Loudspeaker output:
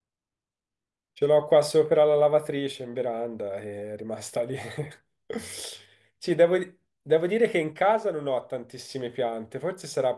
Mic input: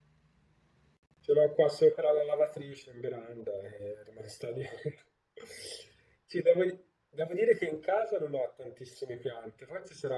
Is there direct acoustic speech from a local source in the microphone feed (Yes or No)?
No